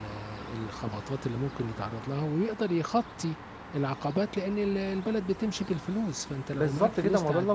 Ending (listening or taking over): taking over